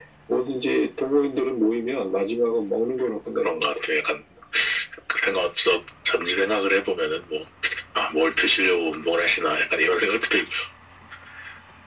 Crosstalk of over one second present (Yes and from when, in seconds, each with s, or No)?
No